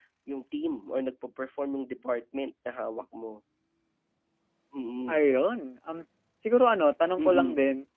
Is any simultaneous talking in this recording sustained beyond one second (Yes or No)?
No